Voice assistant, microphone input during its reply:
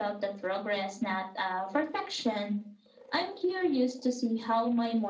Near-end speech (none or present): none